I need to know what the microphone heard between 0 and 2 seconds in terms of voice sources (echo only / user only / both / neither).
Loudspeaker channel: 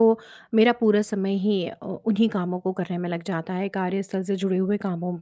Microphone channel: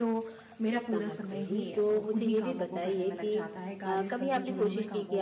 both